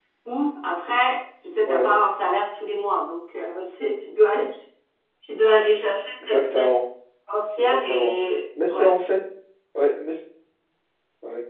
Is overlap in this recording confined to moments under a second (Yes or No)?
Yes